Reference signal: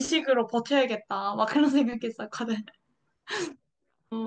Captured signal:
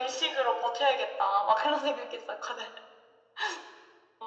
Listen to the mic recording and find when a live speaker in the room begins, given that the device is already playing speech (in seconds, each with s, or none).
none